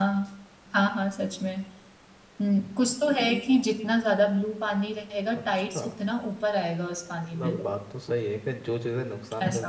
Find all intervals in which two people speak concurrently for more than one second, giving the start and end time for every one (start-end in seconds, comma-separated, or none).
none